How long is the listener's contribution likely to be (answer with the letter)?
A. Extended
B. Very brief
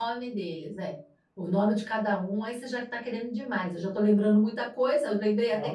A